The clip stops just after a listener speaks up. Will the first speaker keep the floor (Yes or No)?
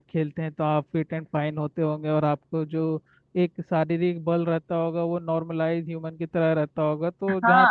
No